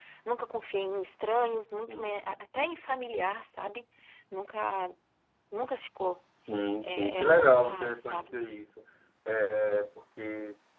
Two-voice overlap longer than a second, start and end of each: 6.8-8.4

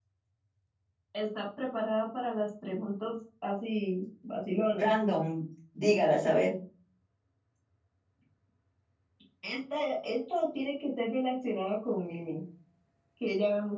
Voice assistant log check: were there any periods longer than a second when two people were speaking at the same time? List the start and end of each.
none

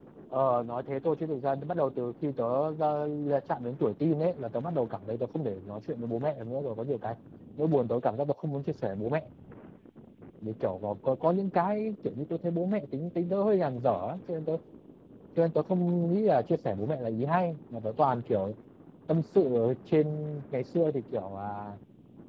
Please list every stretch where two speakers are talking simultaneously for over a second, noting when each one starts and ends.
none

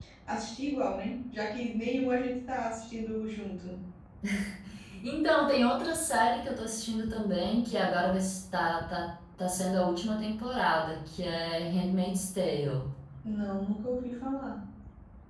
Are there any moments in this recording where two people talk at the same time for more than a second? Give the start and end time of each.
none

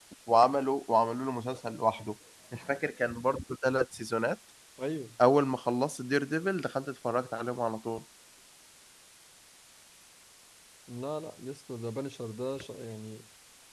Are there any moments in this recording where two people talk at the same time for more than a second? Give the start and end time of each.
none

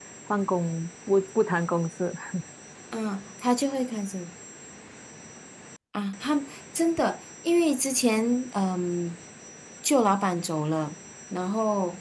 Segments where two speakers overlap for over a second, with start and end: none

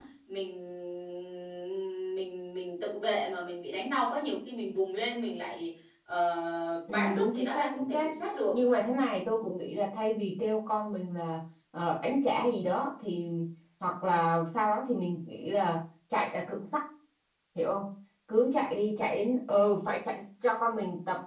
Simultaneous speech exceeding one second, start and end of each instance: 6.9-8.1

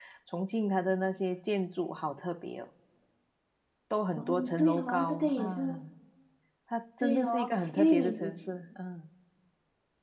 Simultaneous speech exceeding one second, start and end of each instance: 4.2-5.8, 7.0-8.4

